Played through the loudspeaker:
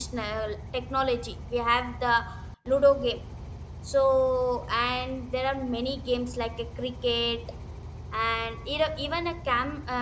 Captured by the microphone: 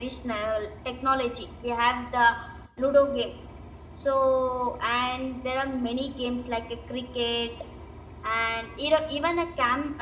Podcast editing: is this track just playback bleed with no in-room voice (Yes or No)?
Yes